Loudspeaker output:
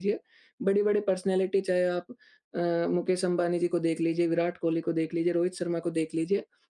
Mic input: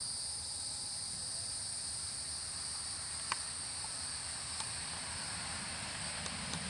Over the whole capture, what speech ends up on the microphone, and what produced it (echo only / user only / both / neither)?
neither